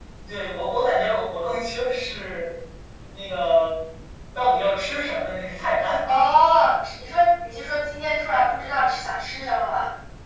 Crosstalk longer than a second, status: none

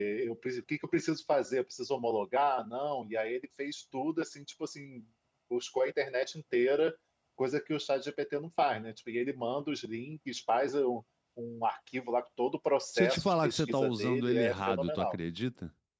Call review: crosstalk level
present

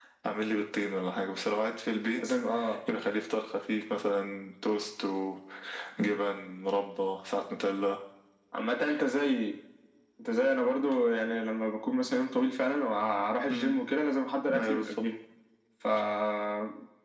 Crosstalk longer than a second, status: none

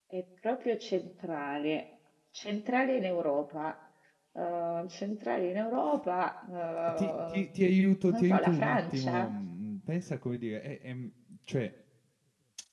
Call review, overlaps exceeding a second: present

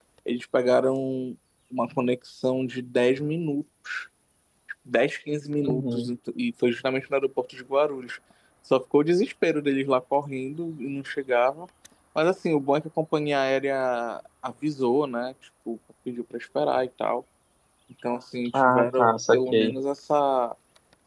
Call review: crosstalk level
present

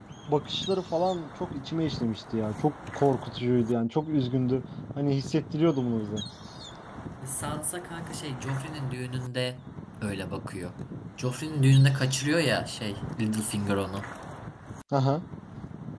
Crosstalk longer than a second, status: none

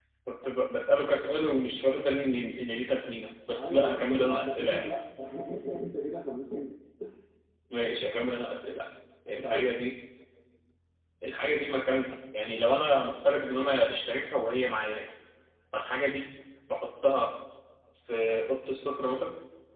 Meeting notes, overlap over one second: present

